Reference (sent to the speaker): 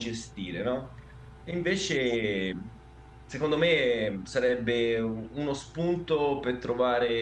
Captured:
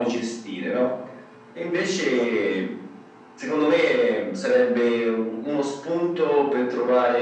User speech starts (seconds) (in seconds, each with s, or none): none